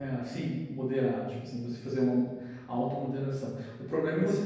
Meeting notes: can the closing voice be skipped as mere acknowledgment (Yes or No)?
Yes